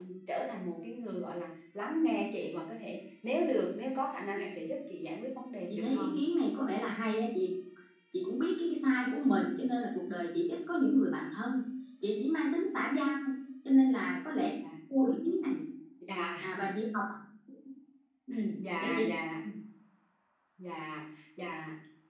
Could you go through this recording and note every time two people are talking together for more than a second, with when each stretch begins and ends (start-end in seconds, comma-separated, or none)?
none